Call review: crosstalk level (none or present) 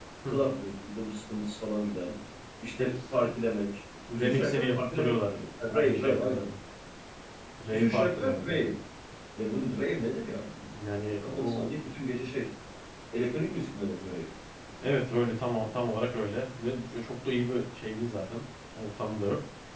present